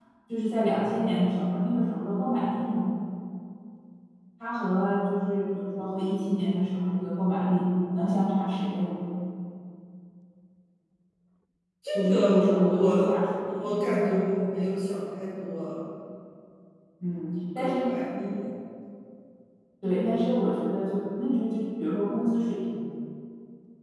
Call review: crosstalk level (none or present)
present